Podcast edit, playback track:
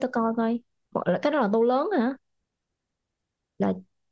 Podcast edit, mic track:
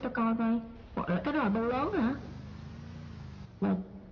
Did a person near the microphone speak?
No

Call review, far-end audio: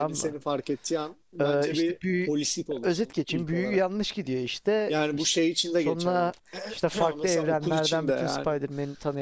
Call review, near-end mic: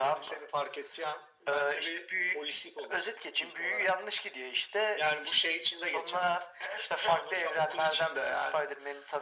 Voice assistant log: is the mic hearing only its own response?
Yes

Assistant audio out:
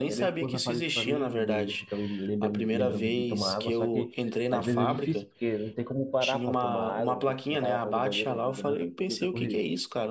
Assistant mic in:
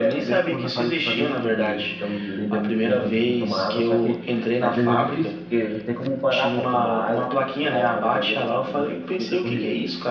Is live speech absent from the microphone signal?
Yes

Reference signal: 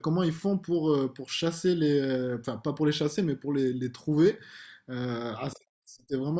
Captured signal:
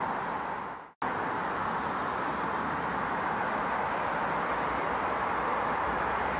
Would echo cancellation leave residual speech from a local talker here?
No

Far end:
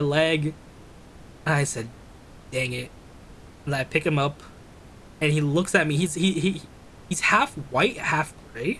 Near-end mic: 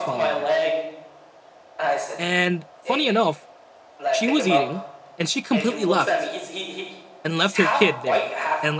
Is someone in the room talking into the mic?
Yes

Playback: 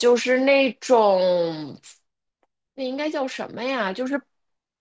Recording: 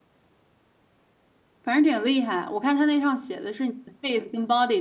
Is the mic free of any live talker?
No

